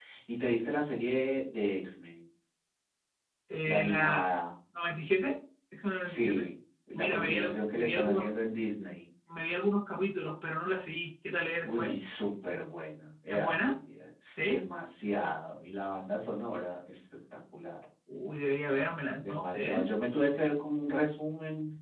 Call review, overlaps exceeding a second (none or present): present